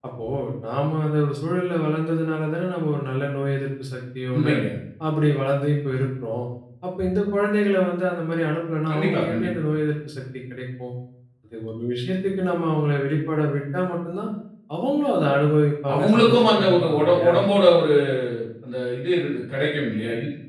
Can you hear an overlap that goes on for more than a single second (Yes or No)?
Yes